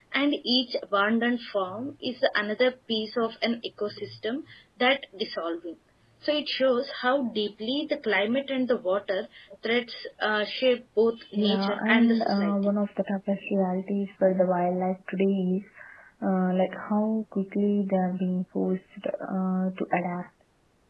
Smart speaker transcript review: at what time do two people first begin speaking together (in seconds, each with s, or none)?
11.3 s